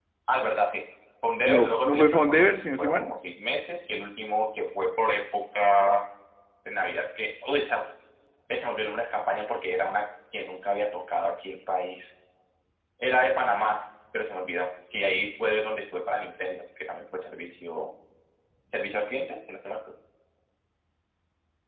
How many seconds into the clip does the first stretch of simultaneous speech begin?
1 s

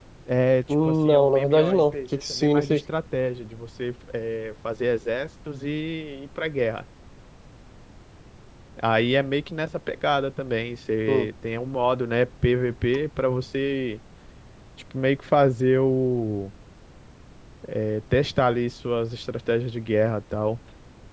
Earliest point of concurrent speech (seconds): 1 s

